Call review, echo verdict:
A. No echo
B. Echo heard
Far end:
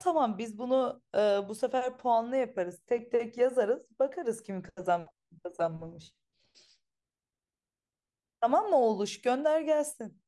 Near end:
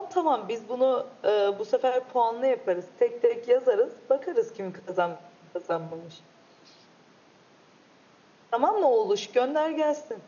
B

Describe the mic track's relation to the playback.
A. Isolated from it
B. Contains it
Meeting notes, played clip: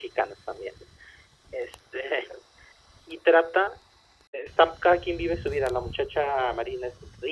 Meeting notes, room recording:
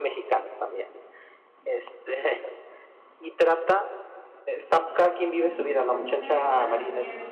B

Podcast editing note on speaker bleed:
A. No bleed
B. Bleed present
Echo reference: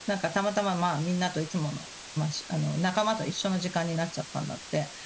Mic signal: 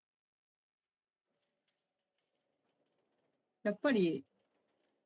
A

